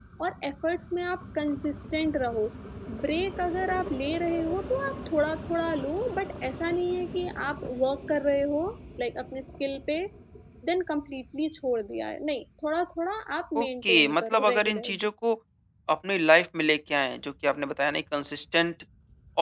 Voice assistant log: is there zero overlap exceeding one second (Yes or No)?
No